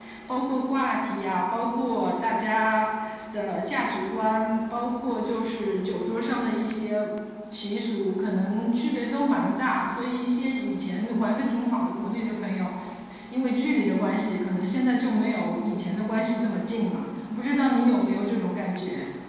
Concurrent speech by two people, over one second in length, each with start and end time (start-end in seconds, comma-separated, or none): none